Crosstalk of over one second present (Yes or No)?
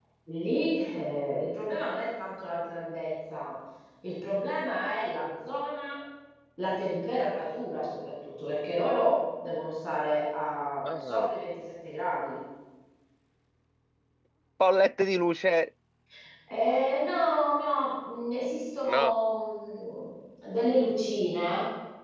No